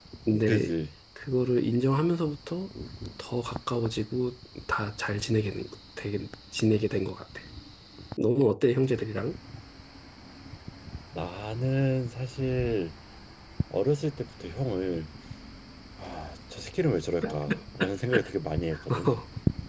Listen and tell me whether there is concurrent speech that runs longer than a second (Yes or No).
No